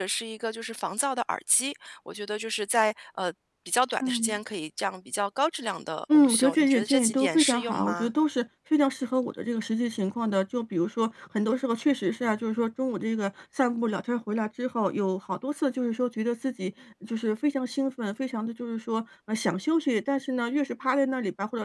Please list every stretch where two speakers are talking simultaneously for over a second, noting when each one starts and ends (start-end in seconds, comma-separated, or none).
6.1-8.1